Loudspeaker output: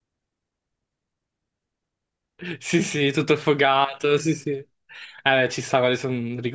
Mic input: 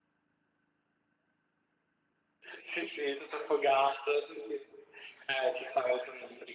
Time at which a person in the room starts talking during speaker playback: none

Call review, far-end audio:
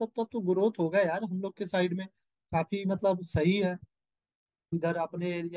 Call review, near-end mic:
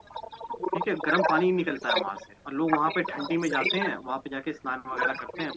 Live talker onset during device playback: 1 s

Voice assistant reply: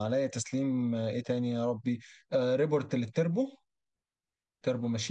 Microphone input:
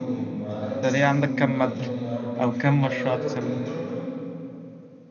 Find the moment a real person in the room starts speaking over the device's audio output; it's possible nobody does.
1 s

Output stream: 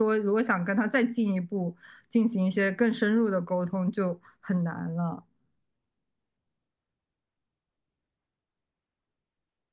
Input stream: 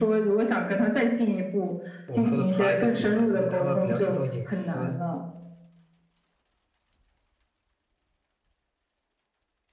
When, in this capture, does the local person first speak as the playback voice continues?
2 s

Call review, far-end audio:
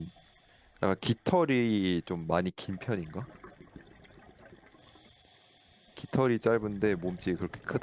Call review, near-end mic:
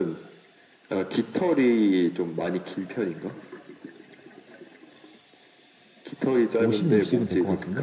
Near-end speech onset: 7 s

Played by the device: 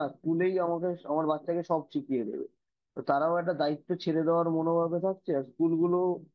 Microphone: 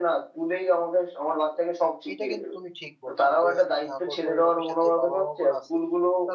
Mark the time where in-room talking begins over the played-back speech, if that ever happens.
2 s

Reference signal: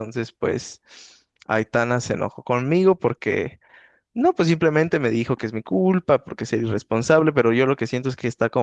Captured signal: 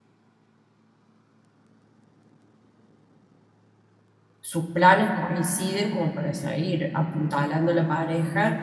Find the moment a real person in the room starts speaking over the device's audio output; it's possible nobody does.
4 s

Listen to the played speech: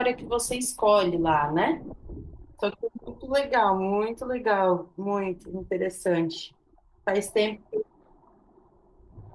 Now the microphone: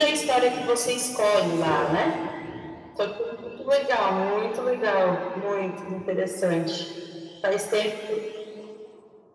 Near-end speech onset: 2 s

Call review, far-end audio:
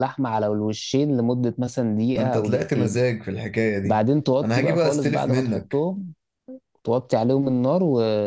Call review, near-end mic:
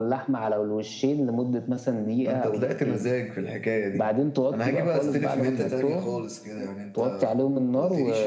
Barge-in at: 5 s

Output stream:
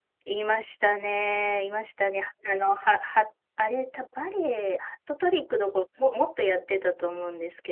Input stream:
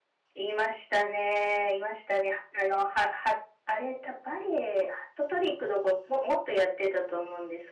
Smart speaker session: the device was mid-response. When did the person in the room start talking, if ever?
none

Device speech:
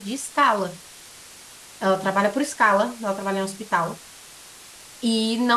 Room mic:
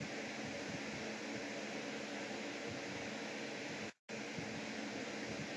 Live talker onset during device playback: none

